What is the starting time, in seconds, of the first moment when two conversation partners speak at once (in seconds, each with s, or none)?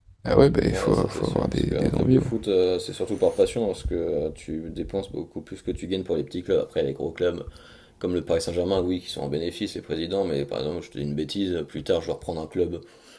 0.7 s